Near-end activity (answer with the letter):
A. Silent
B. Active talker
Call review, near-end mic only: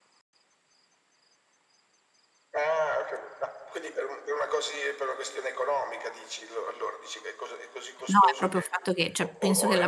B